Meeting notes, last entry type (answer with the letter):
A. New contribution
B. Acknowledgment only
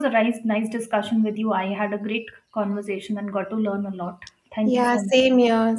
A